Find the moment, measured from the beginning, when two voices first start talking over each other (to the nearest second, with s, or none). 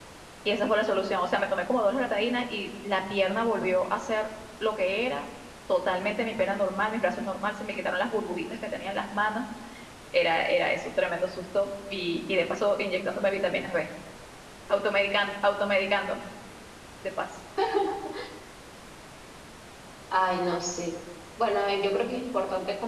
none